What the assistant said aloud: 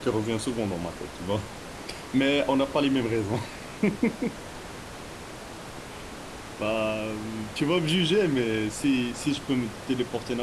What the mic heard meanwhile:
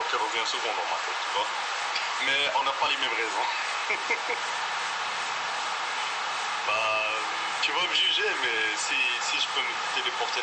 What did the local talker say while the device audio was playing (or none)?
none